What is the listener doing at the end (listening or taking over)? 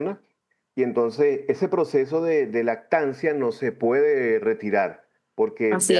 listening